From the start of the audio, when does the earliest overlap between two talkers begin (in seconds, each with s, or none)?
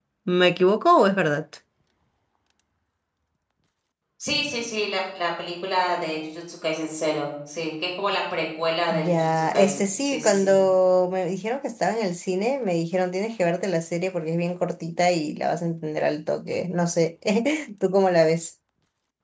8.9 s